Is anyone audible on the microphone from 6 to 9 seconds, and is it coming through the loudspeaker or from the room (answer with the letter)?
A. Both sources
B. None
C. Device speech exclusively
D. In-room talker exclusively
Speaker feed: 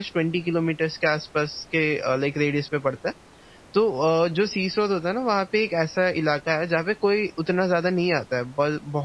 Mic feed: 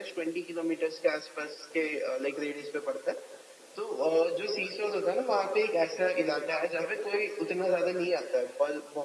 C